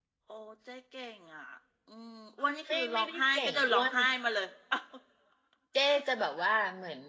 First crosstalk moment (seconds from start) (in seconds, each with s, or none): 2.7 s